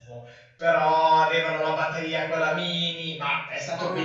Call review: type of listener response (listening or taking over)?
listening